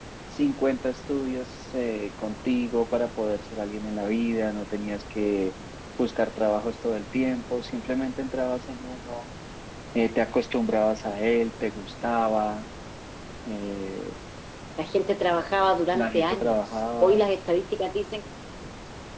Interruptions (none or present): present